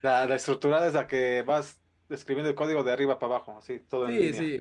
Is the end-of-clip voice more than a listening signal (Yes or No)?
Yes